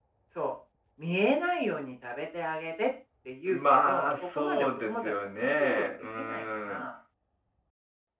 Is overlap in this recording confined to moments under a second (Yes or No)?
No